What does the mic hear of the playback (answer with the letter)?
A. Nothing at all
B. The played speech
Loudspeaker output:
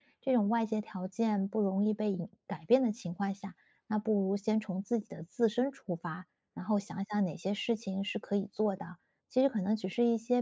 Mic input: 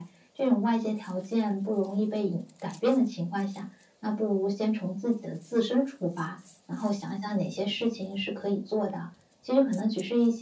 B